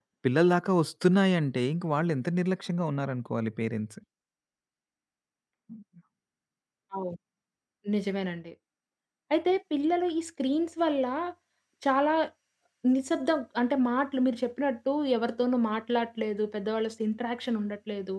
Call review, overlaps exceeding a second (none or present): none